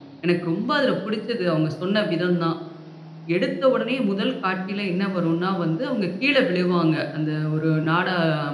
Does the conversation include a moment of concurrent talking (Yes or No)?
No